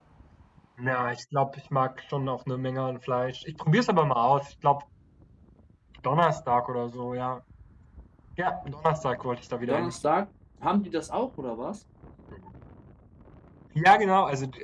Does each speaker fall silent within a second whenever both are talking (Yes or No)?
Yes